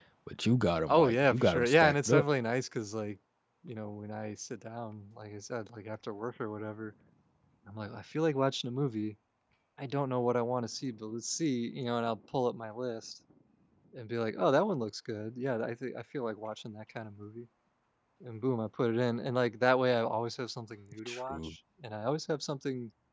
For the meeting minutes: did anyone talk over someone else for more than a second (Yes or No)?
Yes